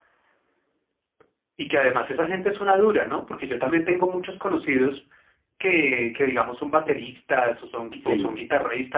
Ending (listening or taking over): listening